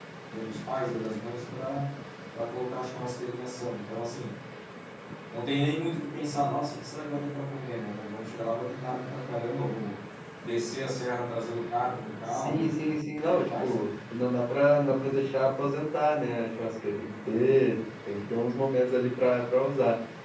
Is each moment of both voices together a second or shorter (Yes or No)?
No